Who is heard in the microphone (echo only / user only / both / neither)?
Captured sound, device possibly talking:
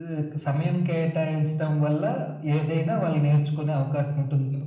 echo only